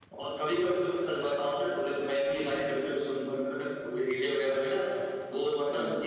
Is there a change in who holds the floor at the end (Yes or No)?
No